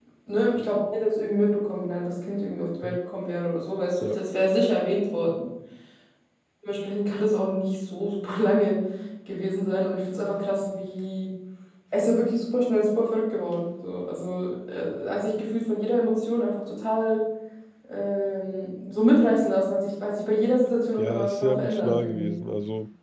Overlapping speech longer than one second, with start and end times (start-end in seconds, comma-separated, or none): 21.0-22.4